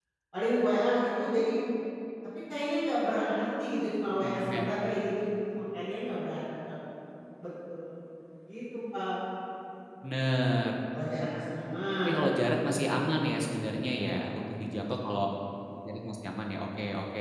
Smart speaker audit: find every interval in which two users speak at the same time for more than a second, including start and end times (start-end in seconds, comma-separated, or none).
none